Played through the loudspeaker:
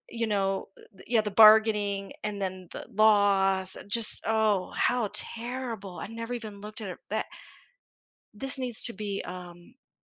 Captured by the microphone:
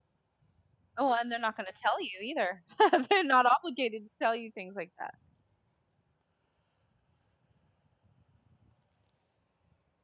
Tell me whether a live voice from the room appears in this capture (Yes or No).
Yes